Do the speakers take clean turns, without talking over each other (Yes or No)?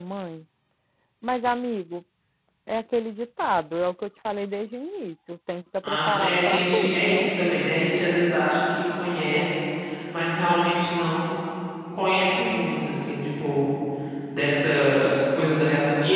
No